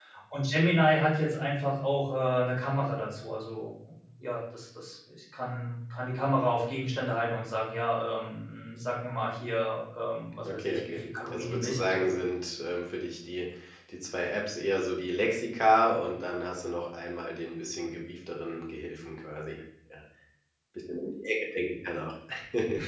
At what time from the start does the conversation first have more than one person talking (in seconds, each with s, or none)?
10.4 s